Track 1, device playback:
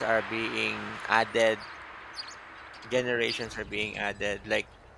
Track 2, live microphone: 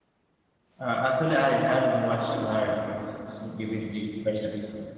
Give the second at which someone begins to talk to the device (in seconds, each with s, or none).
0.8 s